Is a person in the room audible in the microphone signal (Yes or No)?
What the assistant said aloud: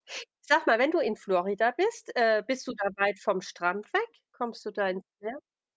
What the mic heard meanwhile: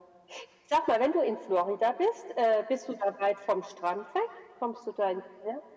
No